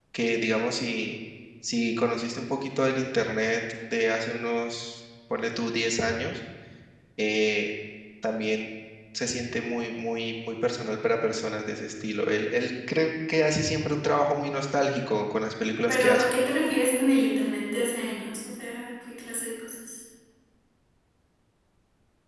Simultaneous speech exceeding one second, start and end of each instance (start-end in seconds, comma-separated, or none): none